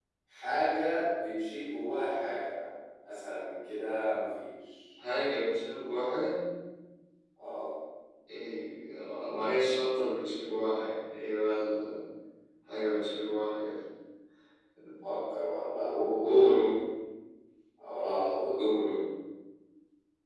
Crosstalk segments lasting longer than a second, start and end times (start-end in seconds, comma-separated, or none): none